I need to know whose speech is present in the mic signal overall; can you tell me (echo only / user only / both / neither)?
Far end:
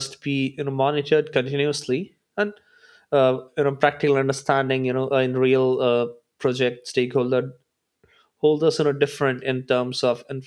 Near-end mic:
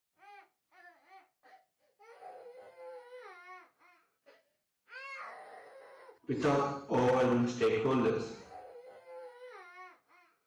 user only